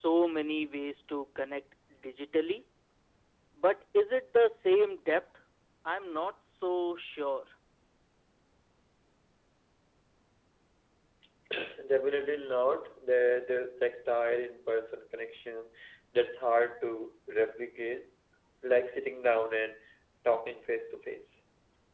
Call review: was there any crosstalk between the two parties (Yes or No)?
No